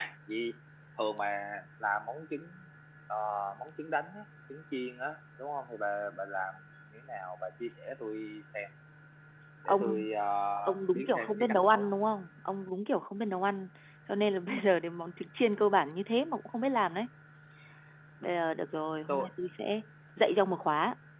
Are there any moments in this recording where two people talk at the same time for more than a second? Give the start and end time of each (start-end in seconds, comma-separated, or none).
10.7-11.9